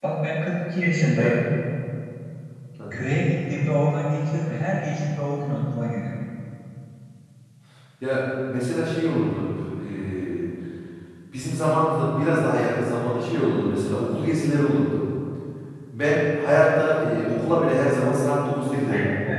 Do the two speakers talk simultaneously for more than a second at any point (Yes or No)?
No